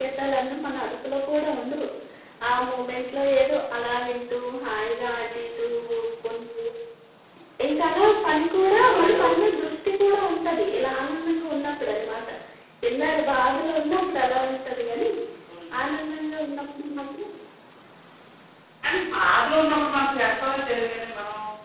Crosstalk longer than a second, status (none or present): none